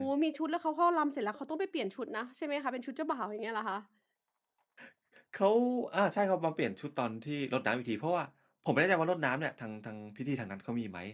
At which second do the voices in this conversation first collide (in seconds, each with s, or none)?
none